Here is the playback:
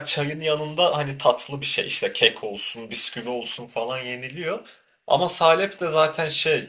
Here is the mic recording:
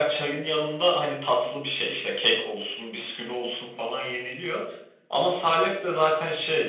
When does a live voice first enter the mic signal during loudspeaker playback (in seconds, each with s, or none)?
none